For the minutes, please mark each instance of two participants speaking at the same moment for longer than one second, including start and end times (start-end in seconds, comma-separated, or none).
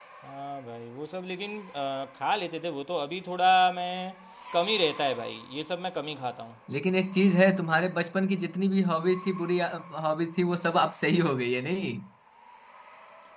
none